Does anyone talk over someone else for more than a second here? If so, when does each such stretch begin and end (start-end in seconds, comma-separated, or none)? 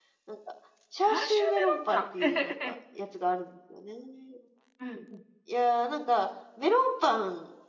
1.0-2.7